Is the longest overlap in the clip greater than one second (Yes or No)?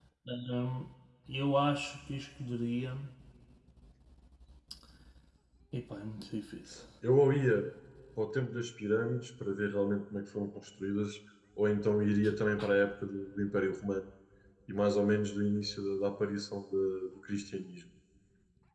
No